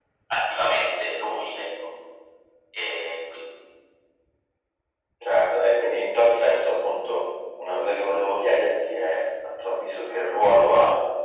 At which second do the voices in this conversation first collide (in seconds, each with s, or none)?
none